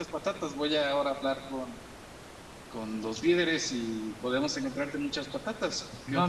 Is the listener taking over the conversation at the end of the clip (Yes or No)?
Yes